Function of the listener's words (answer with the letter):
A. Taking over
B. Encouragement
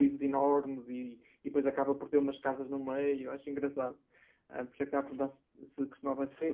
A